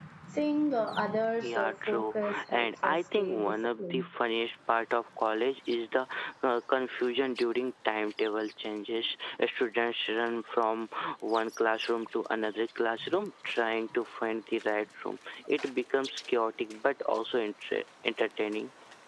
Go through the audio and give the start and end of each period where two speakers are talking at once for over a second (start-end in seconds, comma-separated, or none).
1.4-4.1